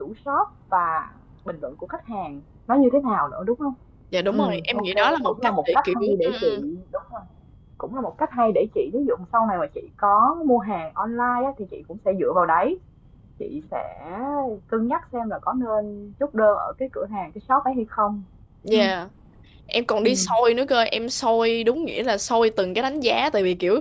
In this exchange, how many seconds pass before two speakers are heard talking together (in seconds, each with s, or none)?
4.3 s